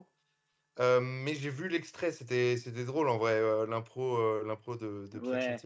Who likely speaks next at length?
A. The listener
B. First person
A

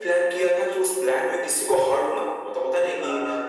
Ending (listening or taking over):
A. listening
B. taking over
A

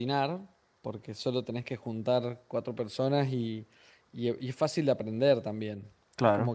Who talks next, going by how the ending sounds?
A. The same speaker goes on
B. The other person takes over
A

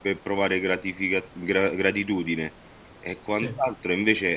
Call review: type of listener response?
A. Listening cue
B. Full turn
A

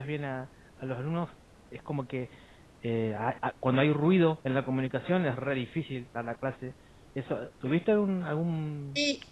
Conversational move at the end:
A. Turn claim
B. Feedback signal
A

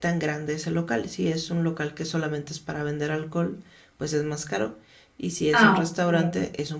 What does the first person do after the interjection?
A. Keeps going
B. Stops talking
A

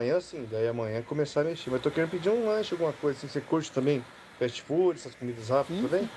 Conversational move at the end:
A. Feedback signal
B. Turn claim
B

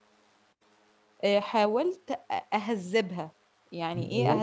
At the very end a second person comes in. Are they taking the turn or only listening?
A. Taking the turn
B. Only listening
B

